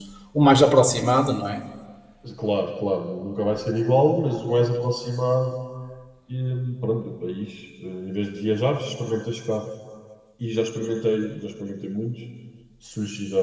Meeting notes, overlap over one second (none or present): none